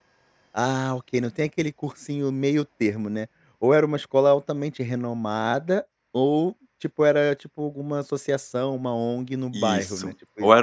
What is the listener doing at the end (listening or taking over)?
taking over